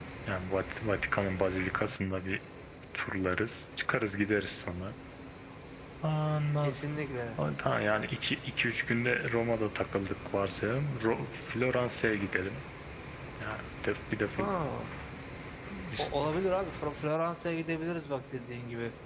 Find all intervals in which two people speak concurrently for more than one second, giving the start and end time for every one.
none

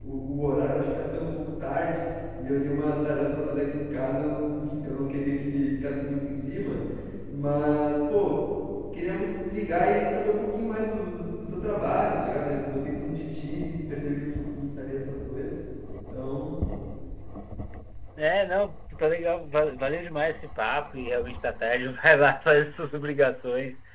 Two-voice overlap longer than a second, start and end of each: none

